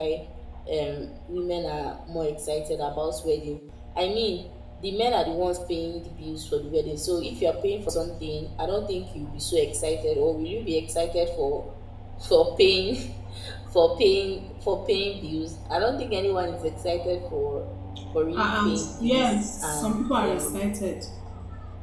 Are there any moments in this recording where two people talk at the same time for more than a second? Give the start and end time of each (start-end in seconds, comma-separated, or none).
18.4-20.6